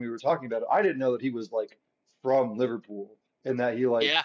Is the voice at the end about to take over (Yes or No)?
No